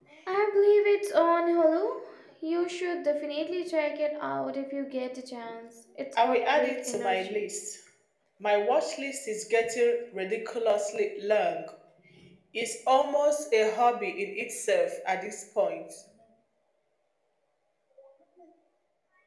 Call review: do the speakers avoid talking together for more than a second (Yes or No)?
No